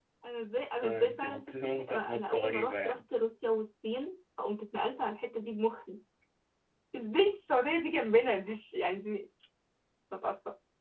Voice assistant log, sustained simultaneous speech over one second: present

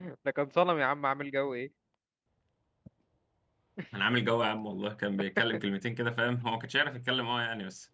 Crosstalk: none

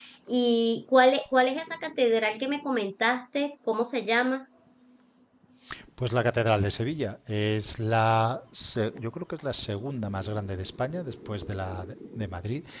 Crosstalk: none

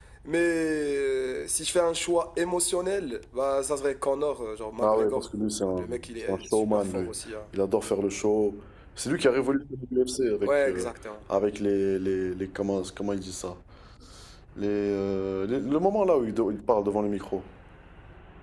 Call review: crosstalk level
present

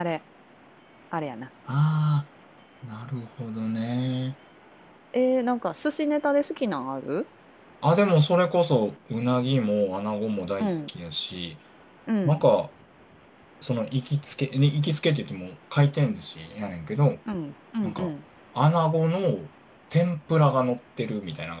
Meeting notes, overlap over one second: none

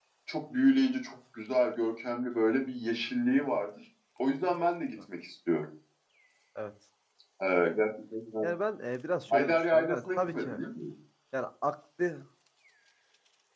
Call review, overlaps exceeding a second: present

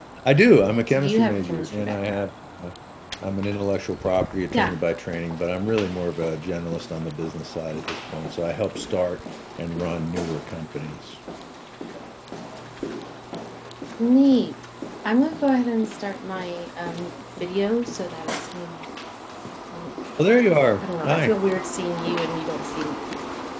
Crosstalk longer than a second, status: present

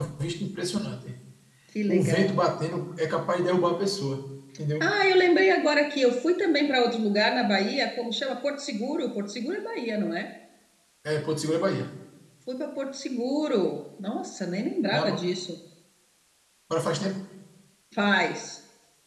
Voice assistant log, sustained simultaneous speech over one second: none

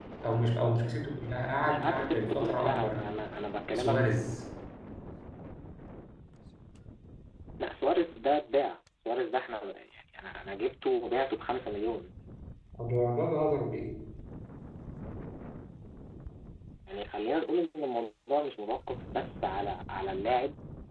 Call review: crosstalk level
present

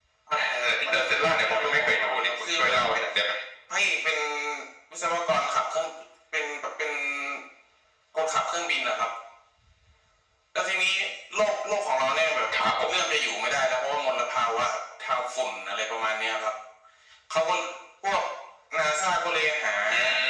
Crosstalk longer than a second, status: present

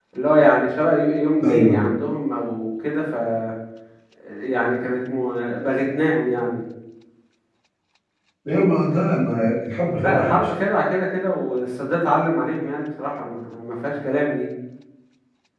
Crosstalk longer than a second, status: none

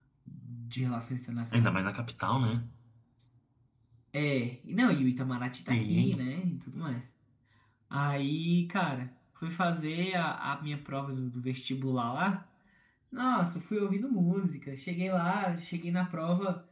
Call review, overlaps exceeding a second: none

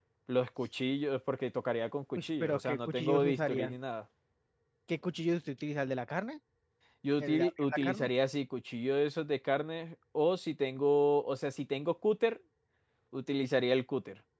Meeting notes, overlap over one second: present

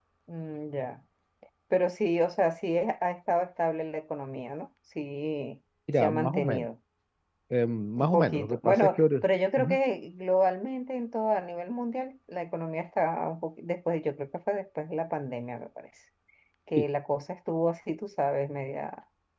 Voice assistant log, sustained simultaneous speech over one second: present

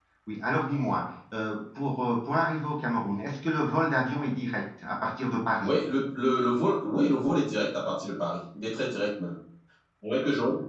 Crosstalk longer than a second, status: none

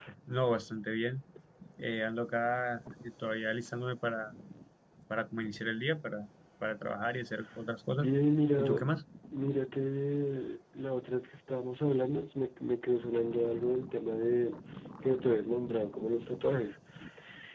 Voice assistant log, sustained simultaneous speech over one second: none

